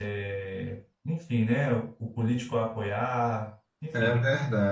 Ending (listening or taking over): taking over